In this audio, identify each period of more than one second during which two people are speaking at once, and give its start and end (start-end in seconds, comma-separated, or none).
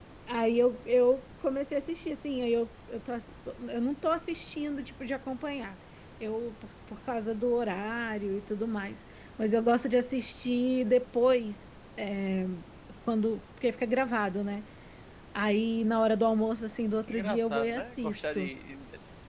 17.1-18.5